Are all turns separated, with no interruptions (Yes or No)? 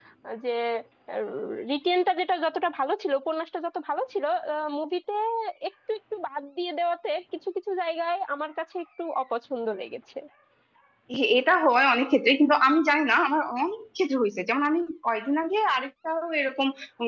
Yes